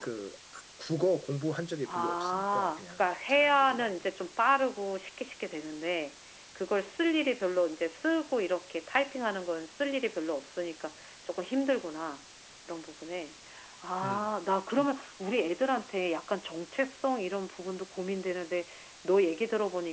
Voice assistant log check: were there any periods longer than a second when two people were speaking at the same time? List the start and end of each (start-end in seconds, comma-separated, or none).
1.9-3.9